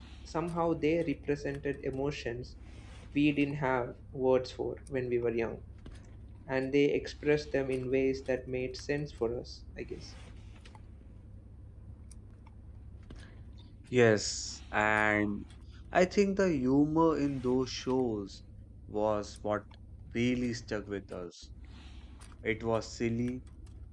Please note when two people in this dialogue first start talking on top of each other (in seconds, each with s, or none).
none